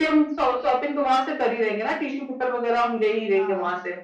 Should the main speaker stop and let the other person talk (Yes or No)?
Yes